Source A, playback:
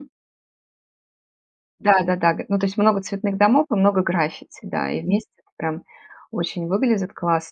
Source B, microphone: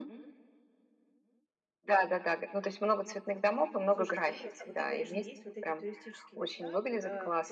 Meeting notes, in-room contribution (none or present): present